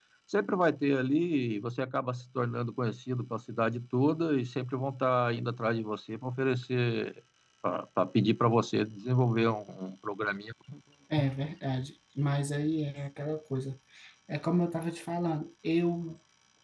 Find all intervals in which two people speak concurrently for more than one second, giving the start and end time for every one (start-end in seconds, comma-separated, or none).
none